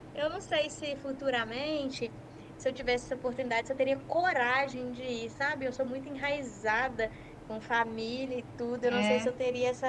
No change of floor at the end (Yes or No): Yes